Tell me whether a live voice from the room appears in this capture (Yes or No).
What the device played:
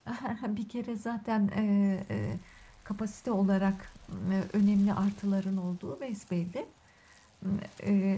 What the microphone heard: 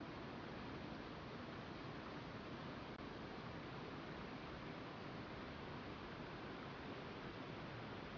No